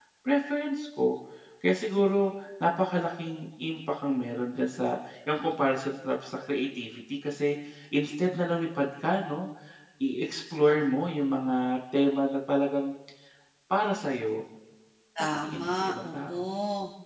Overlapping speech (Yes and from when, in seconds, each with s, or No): Yes, from 15.2 s